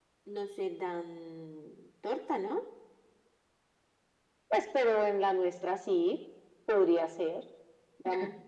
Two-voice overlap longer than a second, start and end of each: none

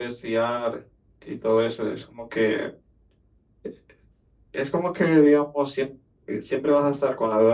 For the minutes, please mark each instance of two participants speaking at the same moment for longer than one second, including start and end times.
none

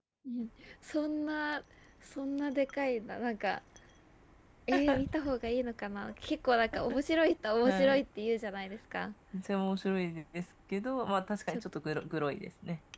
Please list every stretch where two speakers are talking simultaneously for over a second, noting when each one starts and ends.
none

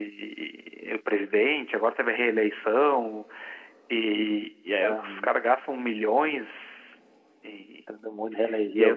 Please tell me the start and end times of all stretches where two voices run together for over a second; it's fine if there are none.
none

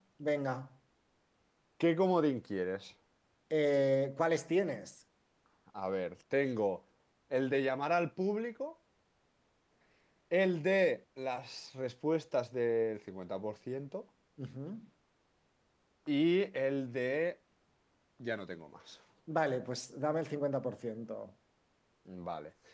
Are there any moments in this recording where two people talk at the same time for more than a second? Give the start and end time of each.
none

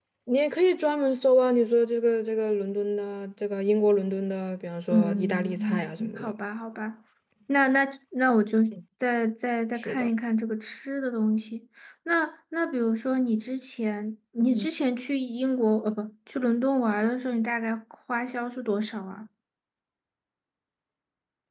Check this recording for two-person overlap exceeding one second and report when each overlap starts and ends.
4.9-6.3

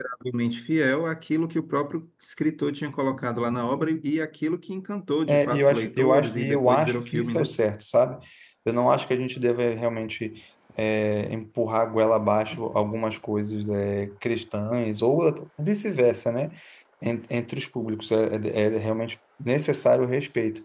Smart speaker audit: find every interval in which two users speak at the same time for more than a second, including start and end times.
5.3-7.5

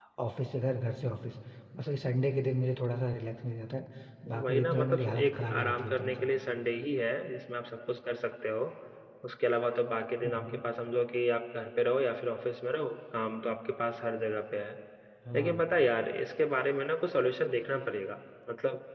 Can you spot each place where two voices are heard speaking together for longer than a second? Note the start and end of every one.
4.4-6.3

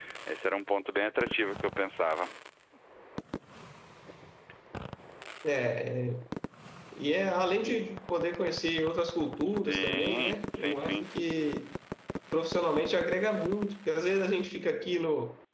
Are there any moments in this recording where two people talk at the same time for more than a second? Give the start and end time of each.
9.5-11.1

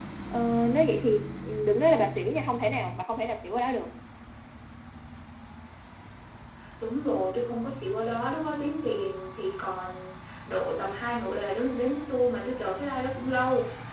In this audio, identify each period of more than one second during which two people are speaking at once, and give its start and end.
none

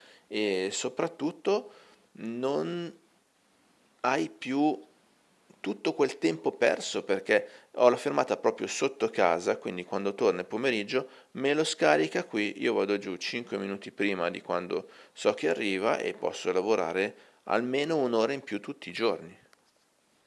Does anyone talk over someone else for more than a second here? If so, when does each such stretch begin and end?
none

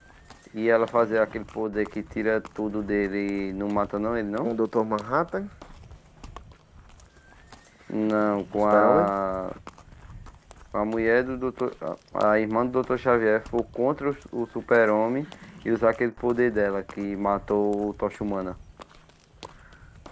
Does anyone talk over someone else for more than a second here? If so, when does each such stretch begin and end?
none

